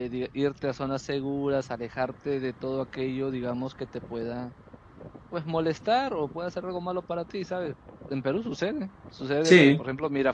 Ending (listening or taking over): listening